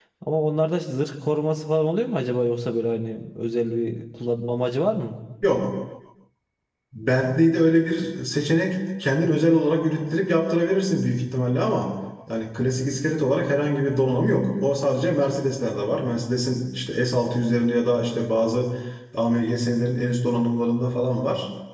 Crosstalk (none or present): none